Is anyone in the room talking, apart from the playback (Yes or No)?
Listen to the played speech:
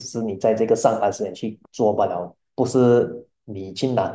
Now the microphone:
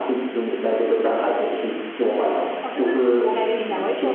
Yes